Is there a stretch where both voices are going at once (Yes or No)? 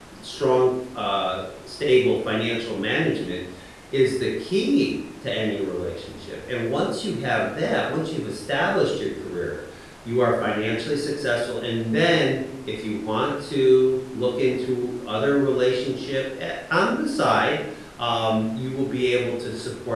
No